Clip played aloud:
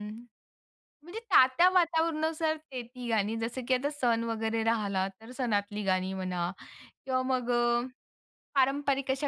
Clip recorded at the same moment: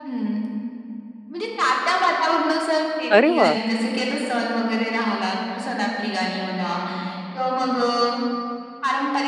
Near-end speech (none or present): present